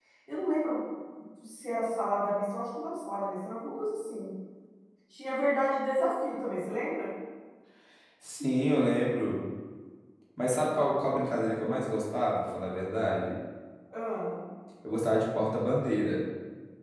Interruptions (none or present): none